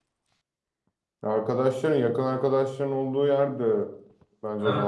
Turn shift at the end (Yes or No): Yes